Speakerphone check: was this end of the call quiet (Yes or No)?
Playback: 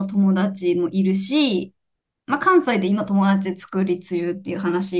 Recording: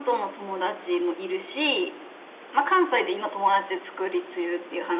Yes